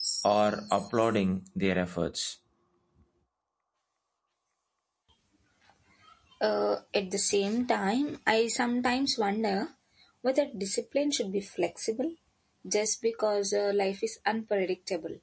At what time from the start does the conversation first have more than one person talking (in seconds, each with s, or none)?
none